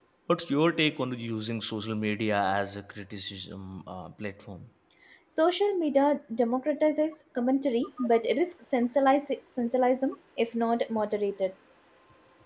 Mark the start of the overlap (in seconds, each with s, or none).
none